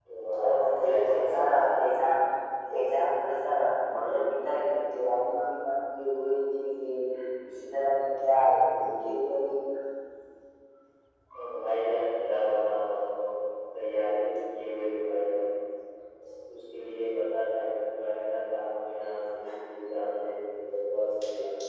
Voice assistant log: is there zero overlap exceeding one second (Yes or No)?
No